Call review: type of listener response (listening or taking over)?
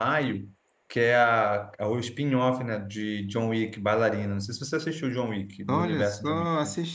taking over